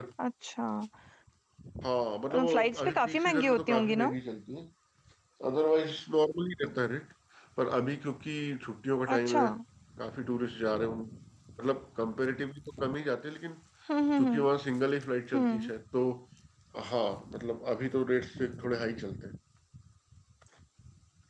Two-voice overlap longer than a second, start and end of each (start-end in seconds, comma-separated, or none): 2.5-4.1